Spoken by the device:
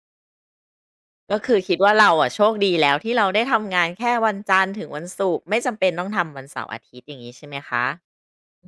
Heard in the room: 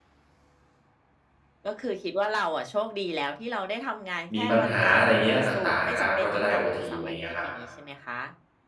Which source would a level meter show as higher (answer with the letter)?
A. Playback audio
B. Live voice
B